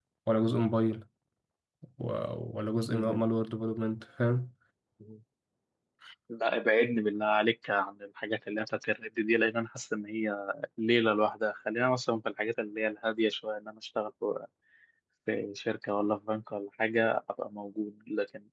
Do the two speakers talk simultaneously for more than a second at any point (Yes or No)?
No